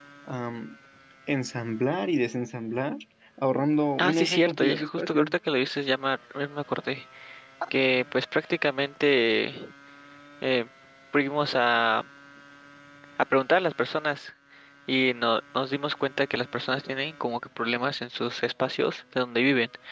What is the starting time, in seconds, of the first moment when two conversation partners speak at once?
4.0 s

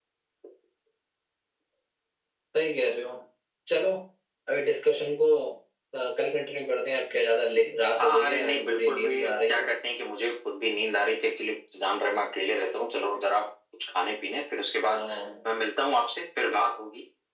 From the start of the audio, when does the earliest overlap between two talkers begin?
8.0 s

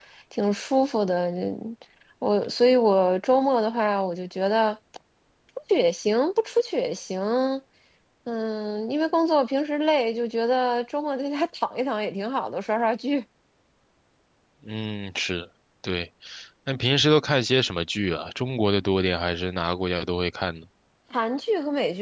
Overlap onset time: none

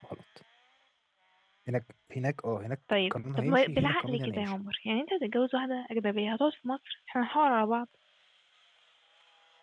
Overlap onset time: 2.9 s

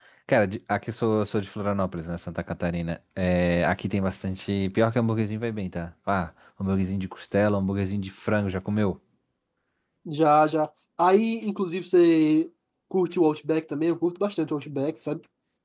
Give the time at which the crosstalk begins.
none

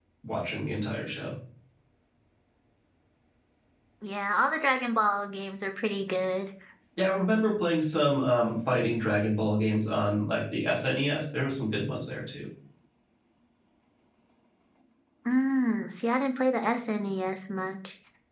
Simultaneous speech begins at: none

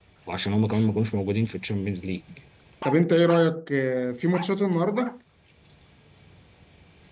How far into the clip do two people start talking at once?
none

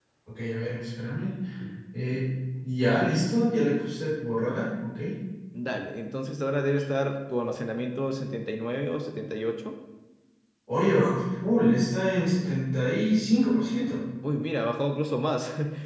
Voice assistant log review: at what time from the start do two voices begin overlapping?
none

